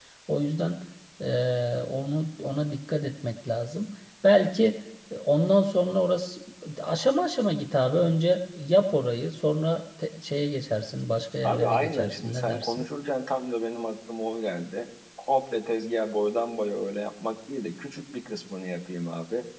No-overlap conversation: No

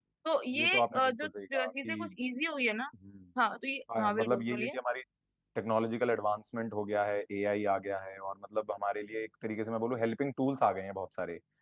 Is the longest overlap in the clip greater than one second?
Yes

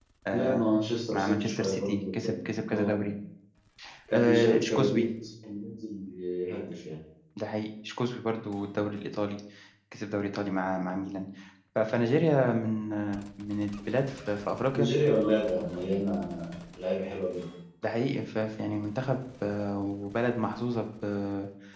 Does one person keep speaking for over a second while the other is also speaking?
Yes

